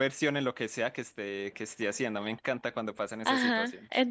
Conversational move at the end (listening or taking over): taking over